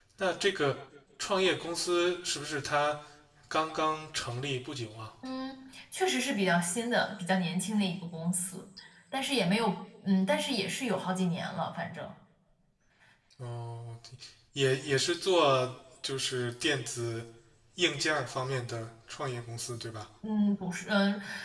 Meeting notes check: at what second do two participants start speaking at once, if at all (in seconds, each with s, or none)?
none